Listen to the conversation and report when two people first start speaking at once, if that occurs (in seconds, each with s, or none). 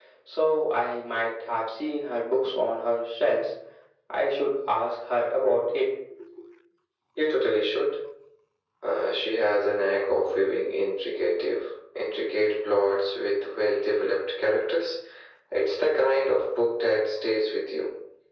none